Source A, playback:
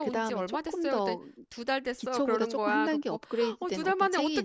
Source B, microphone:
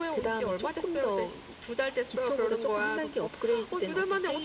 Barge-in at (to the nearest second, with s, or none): none